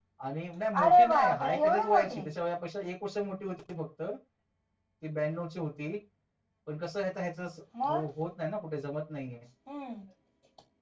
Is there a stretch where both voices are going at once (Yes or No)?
Yes